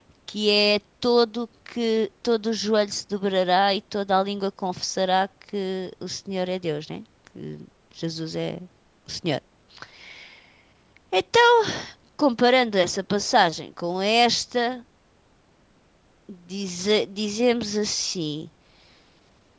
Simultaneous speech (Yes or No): No